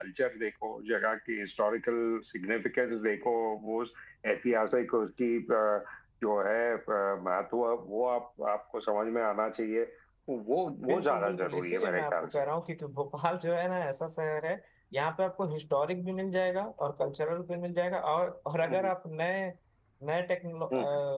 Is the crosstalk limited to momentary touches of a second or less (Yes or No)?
No